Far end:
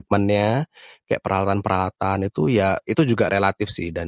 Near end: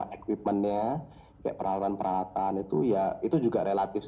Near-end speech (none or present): none